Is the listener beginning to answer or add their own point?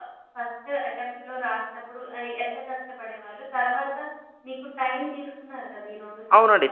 Yes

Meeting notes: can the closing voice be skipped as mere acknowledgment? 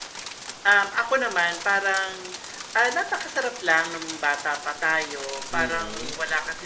Yes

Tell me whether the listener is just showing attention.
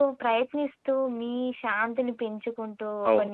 Yes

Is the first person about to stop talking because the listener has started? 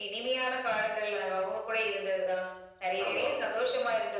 No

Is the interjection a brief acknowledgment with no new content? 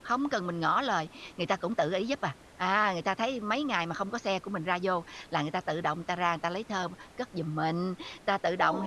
Yes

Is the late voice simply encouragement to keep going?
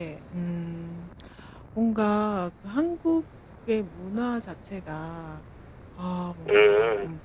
Yes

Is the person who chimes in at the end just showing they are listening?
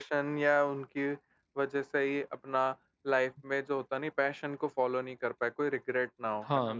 No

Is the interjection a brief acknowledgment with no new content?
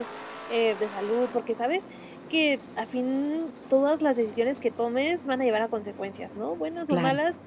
Yes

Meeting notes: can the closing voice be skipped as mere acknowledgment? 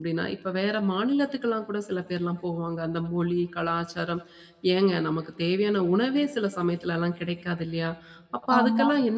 Yes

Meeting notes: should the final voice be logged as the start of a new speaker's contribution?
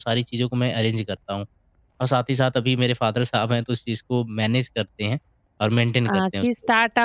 Yes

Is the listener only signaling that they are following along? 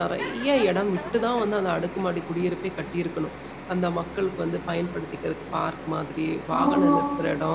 No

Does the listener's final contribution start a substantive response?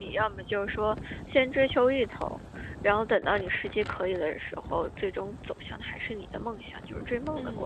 Yes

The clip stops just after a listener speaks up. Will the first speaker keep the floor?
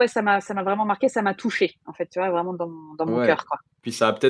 No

